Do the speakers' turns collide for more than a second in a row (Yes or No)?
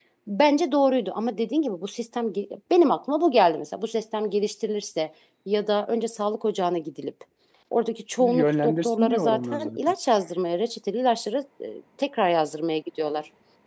Yes